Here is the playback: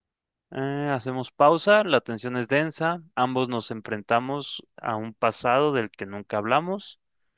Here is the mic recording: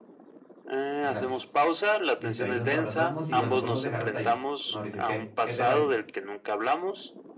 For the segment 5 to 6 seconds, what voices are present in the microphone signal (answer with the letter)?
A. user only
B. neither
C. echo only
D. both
D